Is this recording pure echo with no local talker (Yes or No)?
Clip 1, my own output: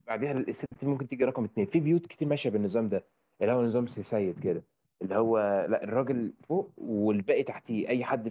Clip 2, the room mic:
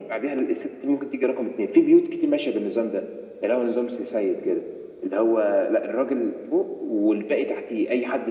Yes